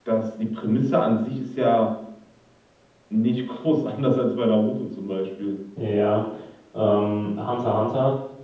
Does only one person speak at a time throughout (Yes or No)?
Yes